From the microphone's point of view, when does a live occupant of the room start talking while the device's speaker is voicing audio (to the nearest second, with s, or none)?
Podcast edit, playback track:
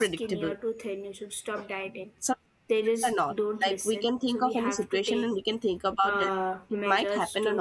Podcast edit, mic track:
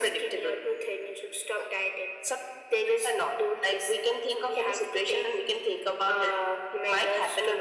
none